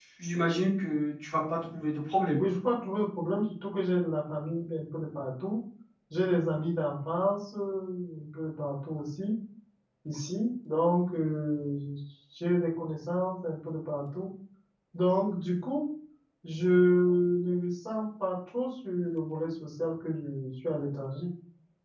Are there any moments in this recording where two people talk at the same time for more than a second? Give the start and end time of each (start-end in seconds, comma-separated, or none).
none